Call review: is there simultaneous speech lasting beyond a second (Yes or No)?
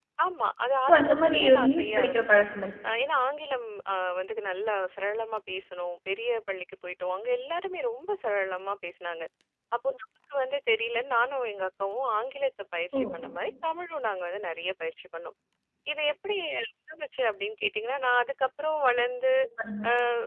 Yes